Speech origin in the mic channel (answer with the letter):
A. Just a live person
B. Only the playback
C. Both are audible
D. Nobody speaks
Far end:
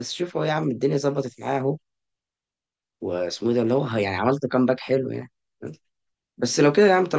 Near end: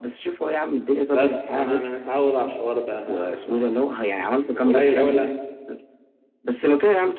C